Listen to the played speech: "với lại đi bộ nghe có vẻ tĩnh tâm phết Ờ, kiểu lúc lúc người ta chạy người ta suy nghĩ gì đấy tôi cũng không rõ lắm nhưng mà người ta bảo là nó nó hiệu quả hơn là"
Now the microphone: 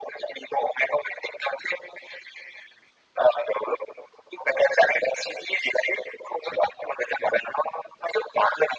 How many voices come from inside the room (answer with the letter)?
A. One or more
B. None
B